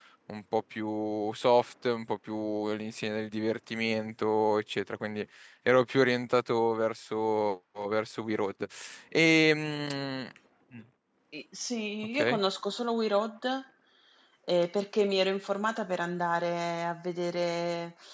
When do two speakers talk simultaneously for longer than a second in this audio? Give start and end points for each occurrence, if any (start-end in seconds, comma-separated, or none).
none